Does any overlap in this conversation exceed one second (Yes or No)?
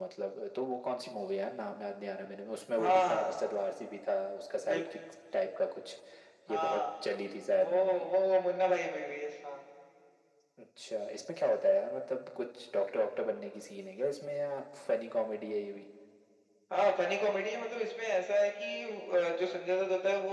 No